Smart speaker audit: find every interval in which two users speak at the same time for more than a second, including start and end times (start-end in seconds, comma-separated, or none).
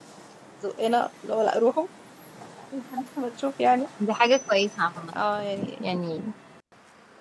none